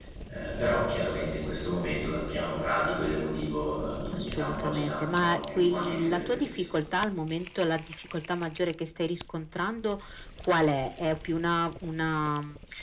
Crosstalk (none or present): present